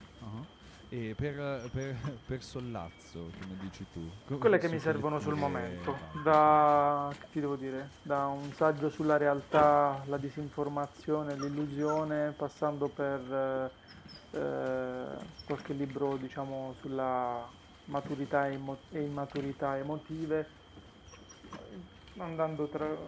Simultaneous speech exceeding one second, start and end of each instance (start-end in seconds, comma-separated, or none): 4.4-6.8